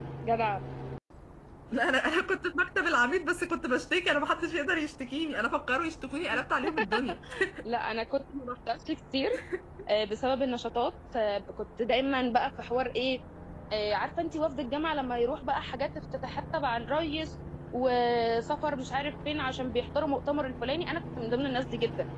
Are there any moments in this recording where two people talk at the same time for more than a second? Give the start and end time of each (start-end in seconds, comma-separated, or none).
none